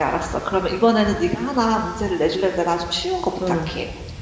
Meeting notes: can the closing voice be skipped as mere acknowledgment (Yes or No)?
No